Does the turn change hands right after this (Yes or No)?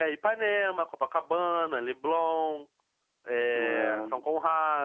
No